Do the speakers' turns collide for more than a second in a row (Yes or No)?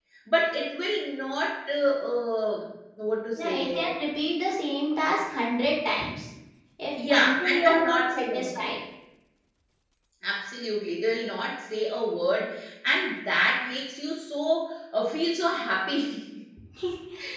Yes